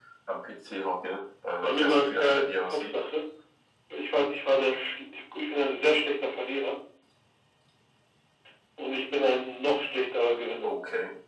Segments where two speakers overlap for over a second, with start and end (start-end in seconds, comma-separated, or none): 1.6-3.0